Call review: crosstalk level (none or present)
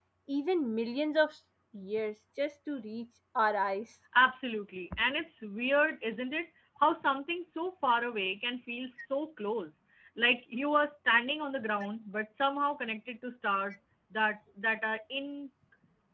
none